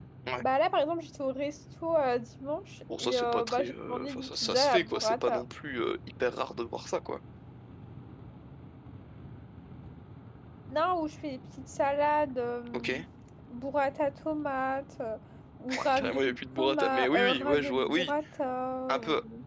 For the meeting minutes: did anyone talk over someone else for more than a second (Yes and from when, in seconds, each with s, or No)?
Yes, from 3.0 s